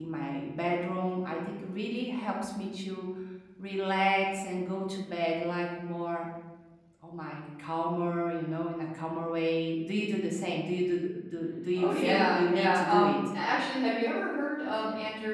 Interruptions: present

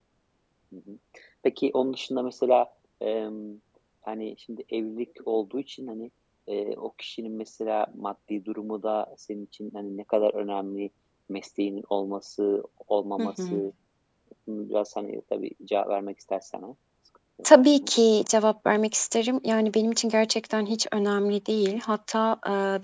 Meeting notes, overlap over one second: none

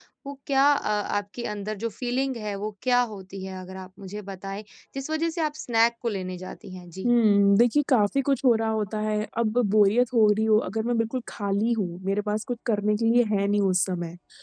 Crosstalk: none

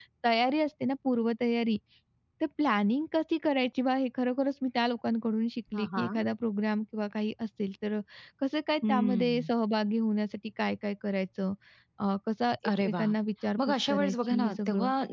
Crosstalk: present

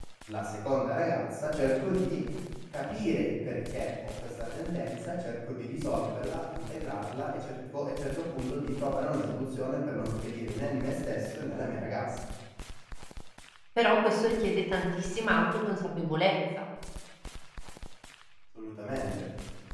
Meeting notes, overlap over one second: none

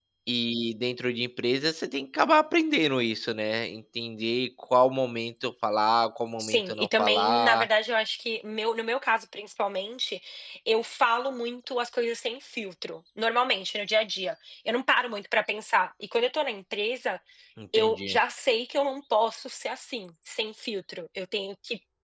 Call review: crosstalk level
present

